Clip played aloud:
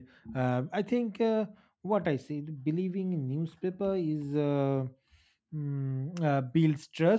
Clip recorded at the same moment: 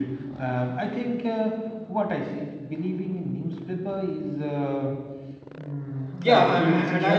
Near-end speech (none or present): present